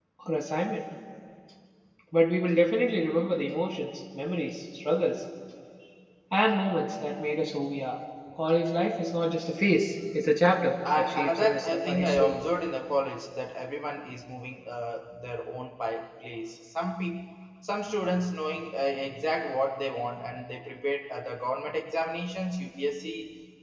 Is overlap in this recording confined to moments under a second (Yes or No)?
No